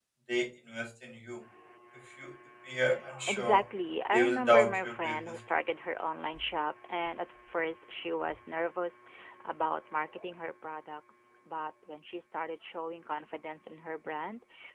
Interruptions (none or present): present